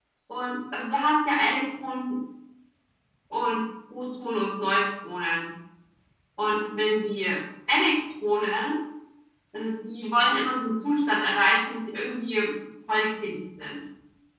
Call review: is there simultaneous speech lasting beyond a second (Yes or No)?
No